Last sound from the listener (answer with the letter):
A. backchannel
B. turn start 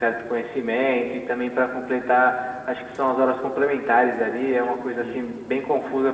A